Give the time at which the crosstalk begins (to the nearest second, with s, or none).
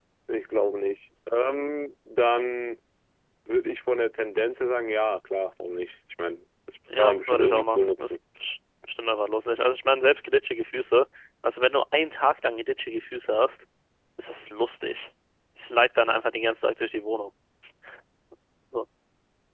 7 s